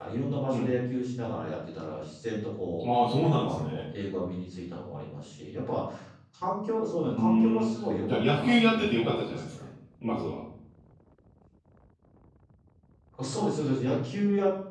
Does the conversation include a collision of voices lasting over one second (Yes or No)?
Yes